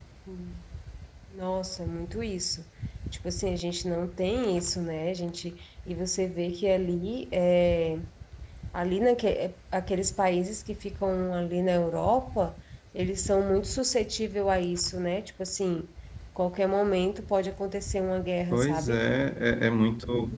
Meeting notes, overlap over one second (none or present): none